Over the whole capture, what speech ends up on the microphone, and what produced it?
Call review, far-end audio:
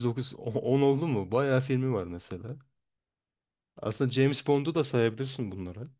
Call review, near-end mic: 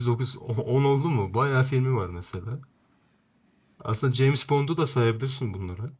echo only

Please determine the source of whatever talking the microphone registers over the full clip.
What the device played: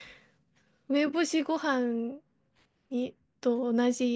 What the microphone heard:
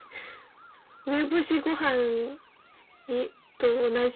echo only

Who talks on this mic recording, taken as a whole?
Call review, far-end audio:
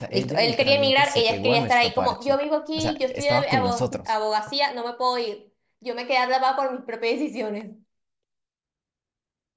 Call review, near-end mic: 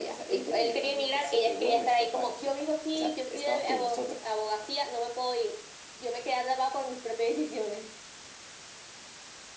echo only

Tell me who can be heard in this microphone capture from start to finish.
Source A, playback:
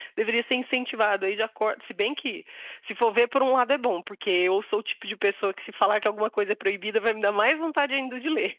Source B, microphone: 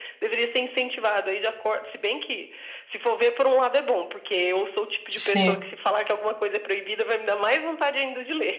both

